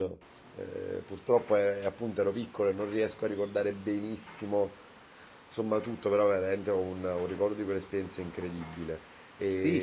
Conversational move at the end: taking over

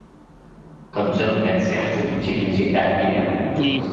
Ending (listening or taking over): taking over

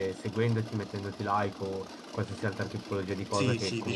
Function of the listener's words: taking over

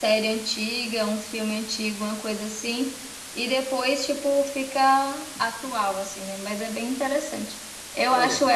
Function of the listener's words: listening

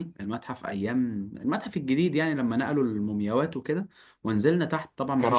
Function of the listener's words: listening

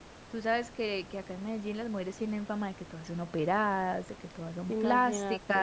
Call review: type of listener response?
listening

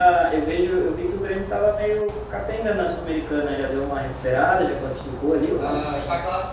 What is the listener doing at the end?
taking over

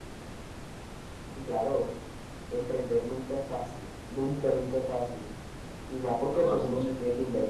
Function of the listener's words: listening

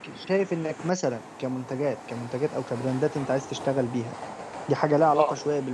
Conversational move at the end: listening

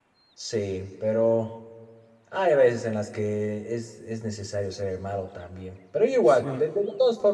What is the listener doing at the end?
listening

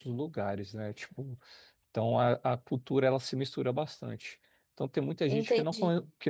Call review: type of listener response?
listening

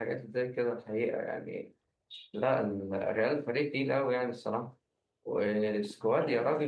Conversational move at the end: listening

